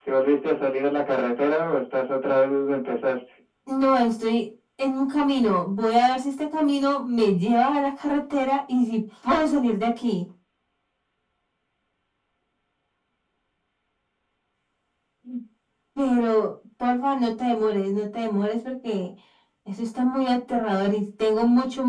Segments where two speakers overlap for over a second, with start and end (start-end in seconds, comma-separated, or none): none